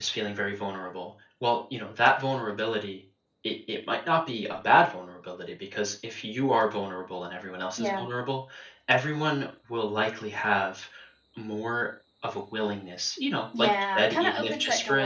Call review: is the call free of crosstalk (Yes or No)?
No